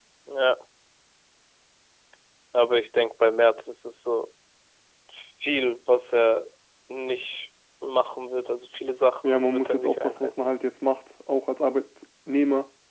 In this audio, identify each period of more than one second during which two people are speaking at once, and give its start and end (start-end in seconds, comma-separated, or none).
9.2-10.5